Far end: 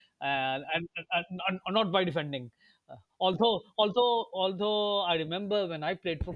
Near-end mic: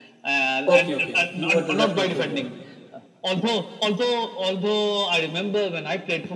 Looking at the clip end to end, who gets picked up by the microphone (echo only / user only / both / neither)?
both